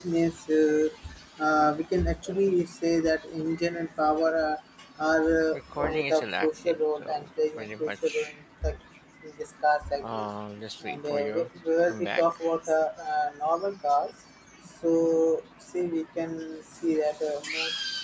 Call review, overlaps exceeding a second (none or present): present